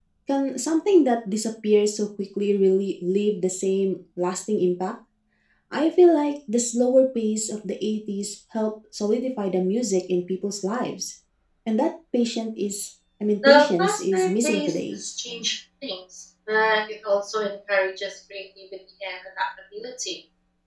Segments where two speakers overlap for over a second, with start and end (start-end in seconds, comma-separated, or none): 13.4-15.0